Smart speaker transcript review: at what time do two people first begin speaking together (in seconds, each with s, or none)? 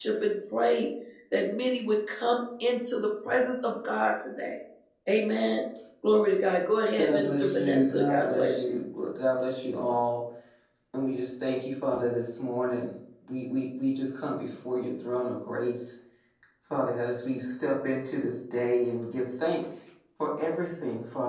7.0 s